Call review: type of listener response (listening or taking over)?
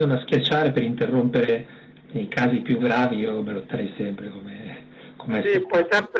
taking over